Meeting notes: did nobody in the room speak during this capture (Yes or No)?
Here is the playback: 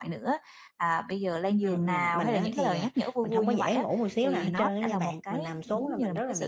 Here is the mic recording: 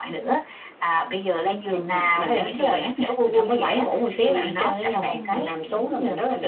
No